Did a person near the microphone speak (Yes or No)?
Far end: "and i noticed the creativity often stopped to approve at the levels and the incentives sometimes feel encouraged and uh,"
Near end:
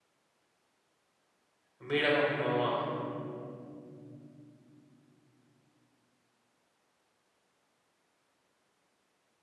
Yes